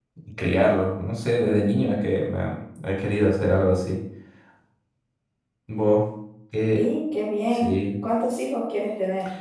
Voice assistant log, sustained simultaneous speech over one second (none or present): none